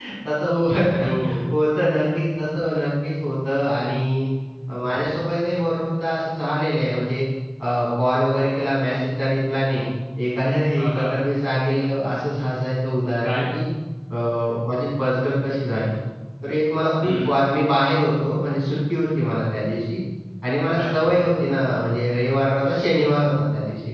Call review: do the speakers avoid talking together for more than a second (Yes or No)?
Yes